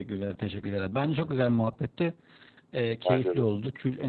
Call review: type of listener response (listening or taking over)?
listening